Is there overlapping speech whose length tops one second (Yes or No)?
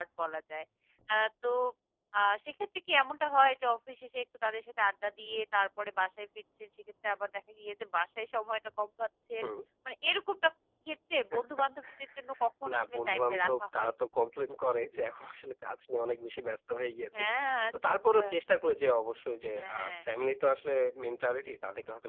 Yes